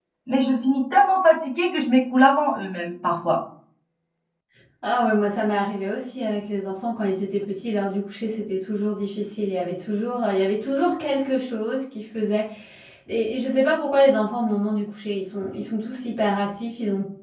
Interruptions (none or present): none